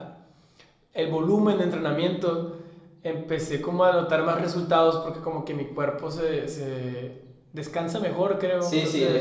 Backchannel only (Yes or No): No